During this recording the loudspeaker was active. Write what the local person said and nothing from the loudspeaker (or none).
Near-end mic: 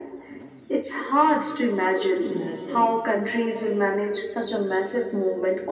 Just imagine